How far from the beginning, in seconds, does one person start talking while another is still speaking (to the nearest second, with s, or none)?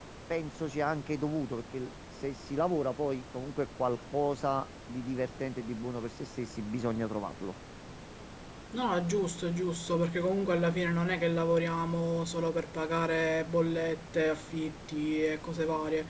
none